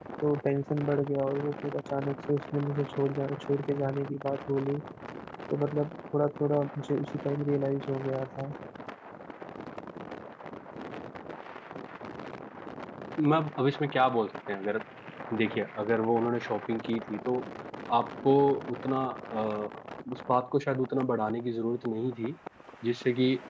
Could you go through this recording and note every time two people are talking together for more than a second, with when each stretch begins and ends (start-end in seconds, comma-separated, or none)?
none